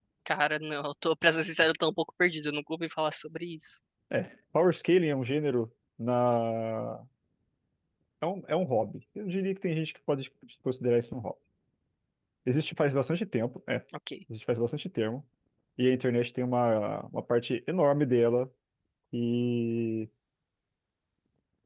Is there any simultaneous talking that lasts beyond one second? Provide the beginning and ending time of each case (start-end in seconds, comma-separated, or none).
none